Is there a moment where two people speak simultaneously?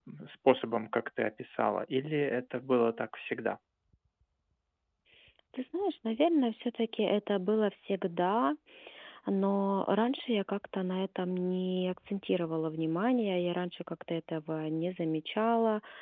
No

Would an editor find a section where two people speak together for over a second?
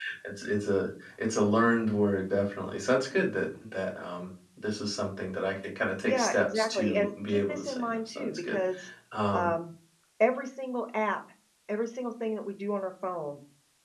Yes, from 6.0 s

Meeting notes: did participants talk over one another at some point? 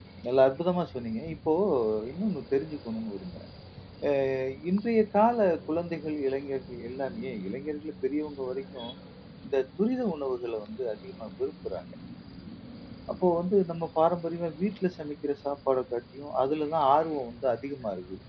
No

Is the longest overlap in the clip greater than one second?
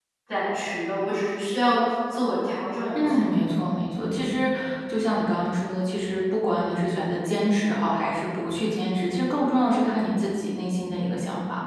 No

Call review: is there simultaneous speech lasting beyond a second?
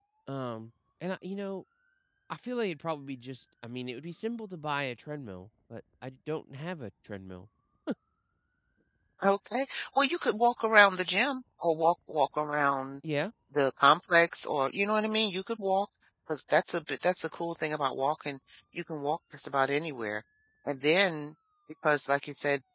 No

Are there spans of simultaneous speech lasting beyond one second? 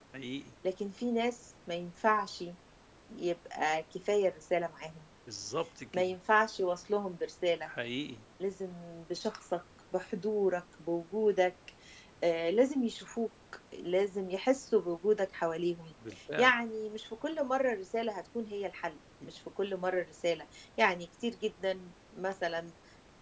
No

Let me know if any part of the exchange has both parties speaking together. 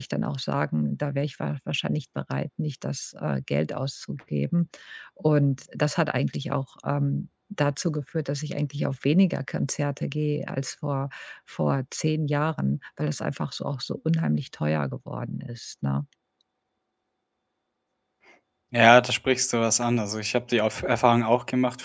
No

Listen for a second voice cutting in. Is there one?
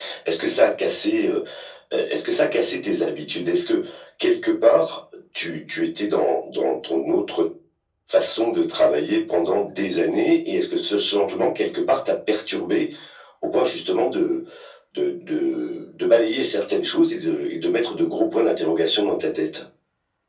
No

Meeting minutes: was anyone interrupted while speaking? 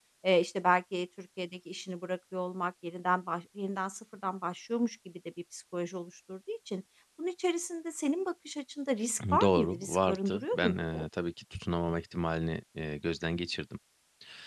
Yes, from 9.2 s

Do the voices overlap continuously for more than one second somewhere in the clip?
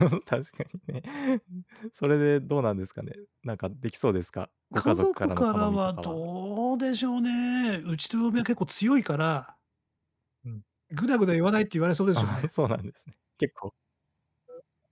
Yes, from 4.7 s

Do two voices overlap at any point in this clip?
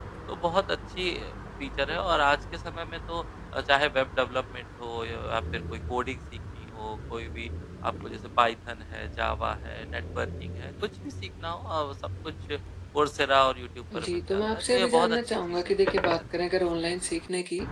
Yes, from 13.9 s

